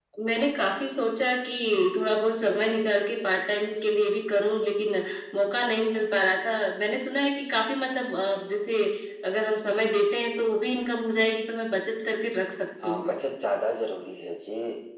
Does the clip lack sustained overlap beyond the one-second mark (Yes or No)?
Yes